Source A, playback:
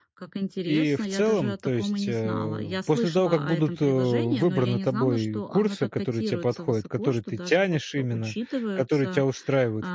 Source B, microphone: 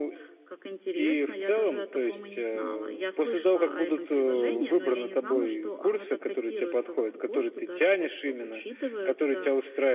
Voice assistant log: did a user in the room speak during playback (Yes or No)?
Yes